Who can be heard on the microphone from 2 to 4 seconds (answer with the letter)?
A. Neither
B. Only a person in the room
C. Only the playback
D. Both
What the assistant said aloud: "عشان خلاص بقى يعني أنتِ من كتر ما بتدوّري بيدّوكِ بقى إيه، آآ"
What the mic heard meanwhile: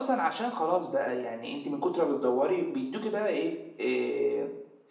C